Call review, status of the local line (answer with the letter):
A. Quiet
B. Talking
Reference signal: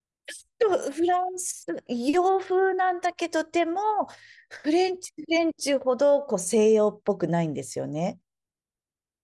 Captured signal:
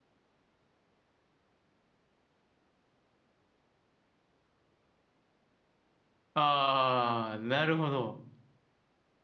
B